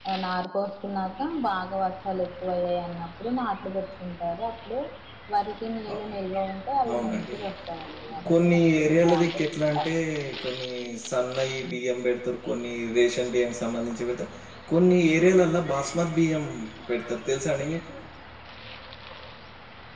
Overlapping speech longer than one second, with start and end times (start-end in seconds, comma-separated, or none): 8.4-9.9